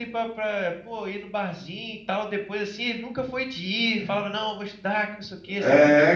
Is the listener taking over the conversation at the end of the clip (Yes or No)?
Yes